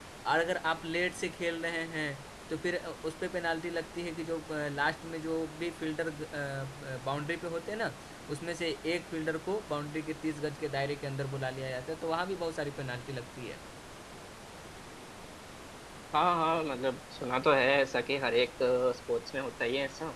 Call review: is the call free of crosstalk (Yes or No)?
Yes